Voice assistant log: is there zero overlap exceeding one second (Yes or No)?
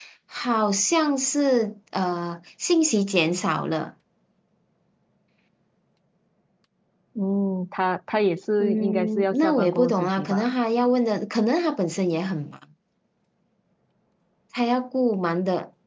No